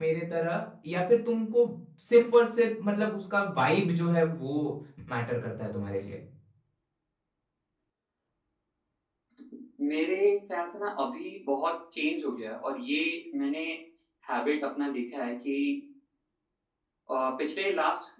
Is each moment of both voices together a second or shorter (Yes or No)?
Yes